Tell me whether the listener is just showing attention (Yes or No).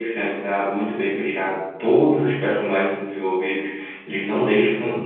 Yes